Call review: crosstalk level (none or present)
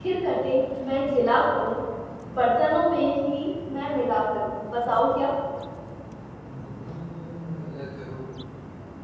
none